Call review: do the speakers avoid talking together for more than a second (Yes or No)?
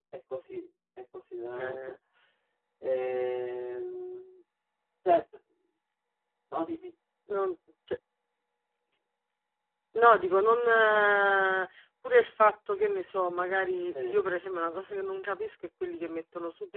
Yes